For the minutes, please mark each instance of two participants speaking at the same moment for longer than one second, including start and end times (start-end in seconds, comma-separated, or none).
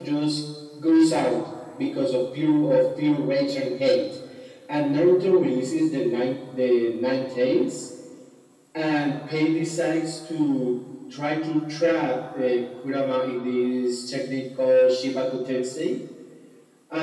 none